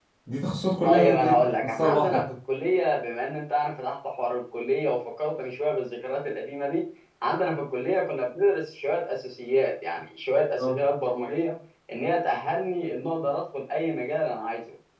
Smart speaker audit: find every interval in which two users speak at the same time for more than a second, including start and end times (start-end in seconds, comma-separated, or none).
0.8-2.3